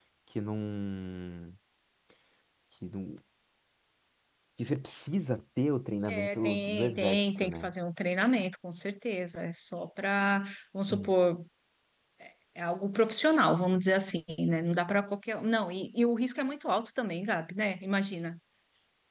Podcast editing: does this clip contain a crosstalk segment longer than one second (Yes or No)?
Yes